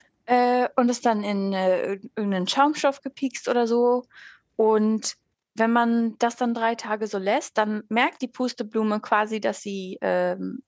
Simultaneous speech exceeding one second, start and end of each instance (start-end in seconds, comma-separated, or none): none